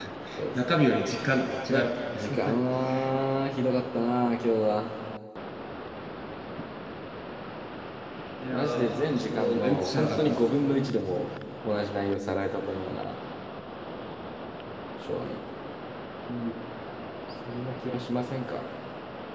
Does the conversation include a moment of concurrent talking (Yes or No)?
Yes